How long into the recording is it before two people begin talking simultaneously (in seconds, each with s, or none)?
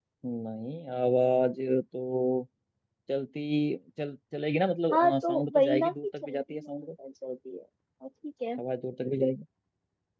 4.9 s